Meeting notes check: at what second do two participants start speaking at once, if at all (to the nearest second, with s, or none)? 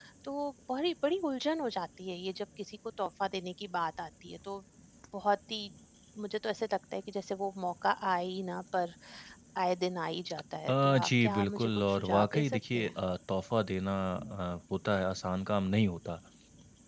11 s